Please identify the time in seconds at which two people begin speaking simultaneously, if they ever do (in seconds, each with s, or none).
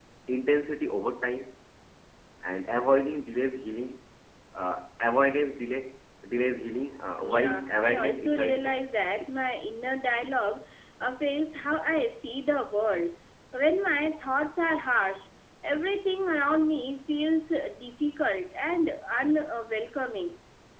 7.2 s